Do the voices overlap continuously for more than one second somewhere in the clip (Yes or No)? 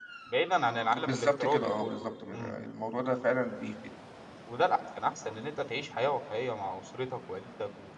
Yes